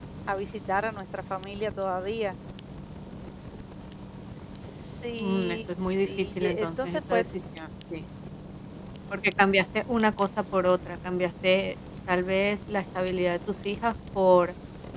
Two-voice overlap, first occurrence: 5 s

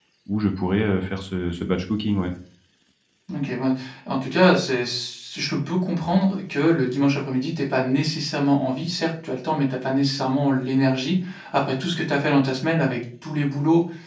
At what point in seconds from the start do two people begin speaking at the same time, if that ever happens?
none

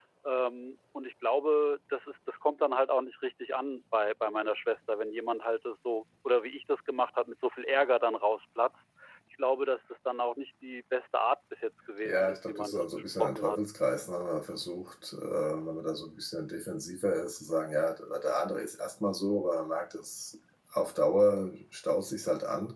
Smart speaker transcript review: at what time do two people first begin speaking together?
12 s

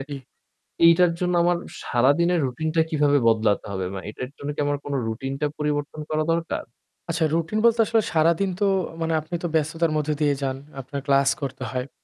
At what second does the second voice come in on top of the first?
none

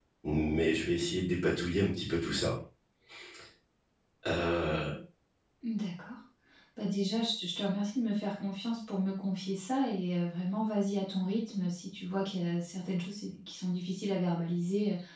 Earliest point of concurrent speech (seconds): none

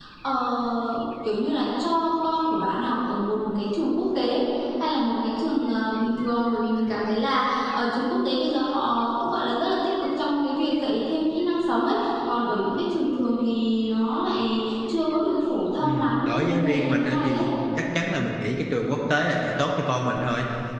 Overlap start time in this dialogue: 16 s

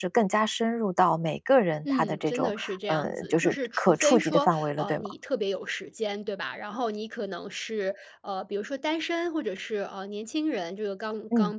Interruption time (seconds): 2 s

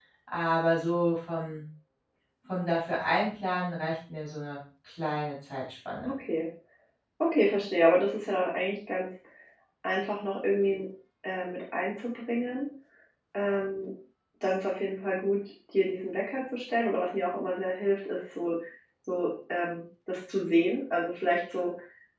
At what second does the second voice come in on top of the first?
none

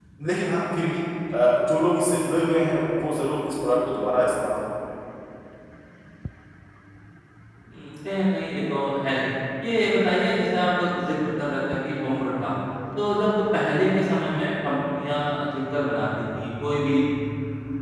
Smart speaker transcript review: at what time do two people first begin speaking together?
none

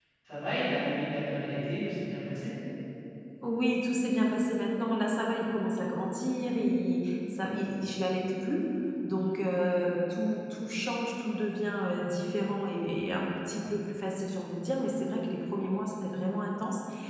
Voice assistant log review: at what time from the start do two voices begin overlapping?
none

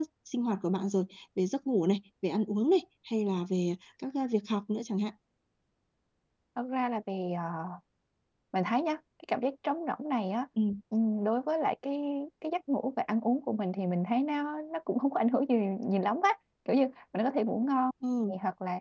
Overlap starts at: none

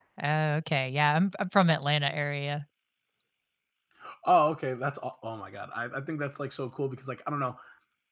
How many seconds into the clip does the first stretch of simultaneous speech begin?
none

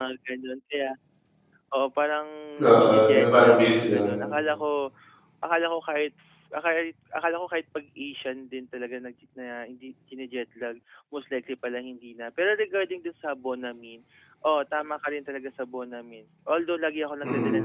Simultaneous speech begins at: 3 s

